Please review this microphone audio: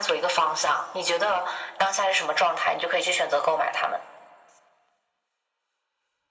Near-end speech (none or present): none